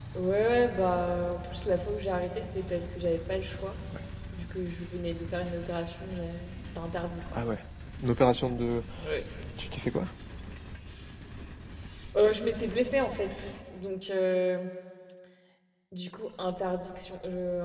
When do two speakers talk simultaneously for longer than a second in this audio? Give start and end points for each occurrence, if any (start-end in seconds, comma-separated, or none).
none